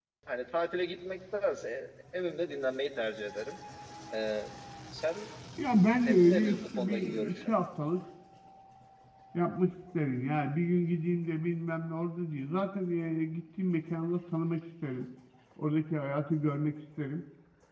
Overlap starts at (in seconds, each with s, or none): 6.0 s